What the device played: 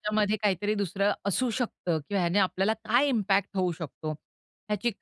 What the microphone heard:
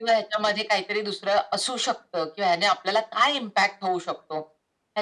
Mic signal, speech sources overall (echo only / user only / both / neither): echo only